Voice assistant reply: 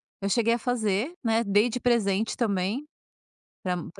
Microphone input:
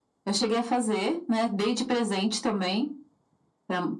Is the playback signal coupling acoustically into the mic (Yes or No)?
Yes